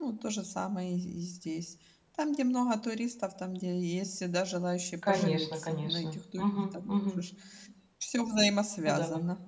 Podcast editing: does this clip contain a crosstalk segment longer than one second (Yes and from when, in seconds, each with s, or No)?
Yes, from 5.0 s